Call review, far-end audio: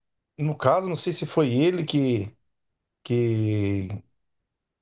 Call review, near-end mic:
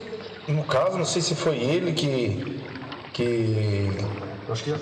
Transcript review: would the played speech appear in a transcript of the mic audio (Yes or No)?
Yes